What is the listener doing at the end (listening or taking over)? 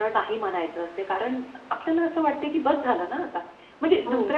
listening